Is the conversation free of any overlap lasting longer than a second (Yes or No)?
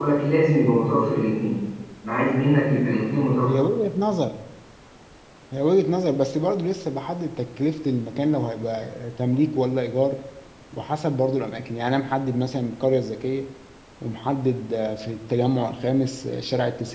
Yes